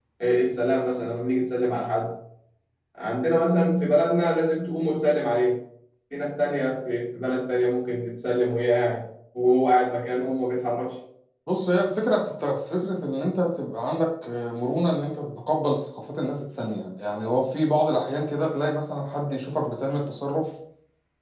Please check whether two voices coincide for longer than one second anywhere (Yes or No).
No